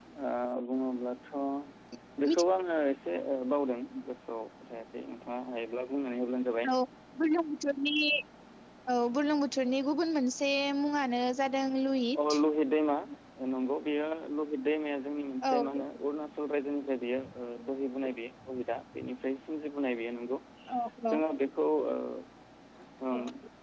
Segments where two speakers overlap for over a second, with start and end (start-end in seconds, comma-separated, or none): none